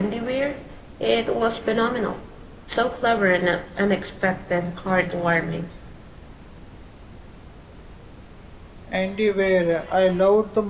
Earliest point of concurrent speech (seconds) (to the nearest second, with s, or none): none